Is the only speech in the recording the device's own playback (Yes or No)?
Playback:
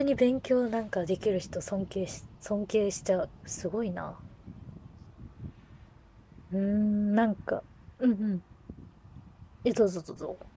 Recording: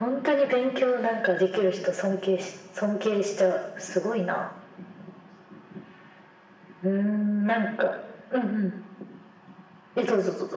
Yes